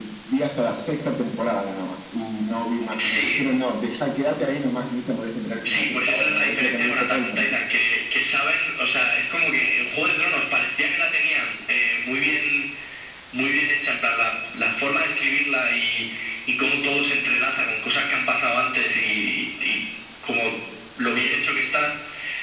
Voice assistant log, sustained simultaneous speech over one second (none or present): present